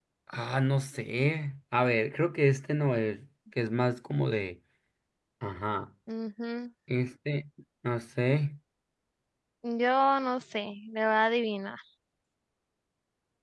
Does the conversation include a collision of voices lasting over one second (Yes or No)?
No